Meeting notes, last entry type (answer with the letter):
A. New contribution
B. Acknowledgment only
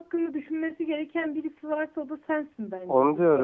A